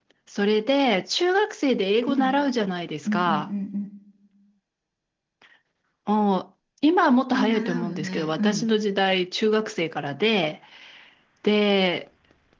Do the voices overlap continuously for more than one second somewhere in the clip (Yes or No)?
Yes